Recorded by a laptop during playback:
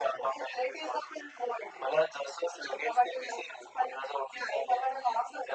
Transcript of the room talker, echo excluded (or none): none